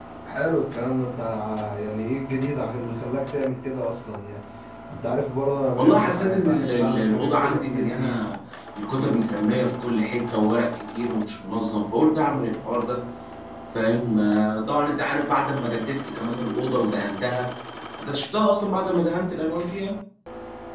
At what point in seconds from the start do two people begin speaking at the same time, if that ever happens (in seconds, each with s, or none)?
5.8 s